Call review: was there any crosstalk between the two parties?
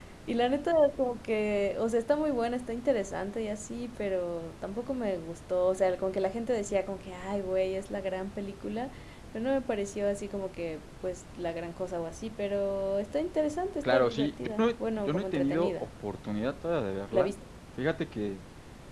Yes, from 13.8 s

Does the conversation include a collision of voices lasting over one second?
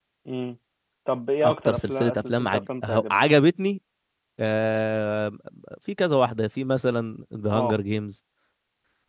Yes, from 1.4 s

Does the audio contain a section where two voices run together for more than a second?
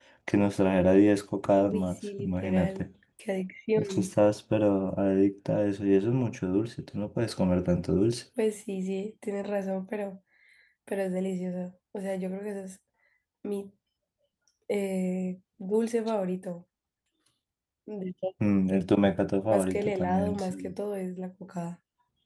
Yes, from 1.6 s

